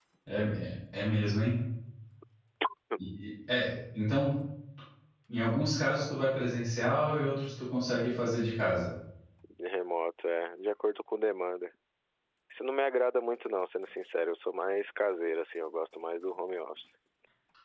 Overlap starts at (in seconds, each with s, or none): none